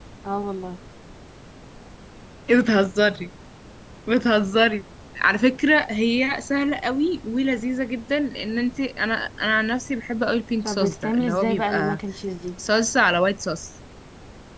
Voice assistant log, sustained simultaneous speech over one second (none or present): present